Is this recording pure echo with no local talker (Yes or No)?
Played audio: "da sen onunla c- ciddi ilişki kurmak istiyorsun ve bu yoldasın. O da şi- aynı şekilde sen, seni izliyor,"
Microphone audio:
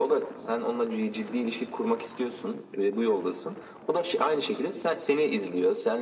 Yes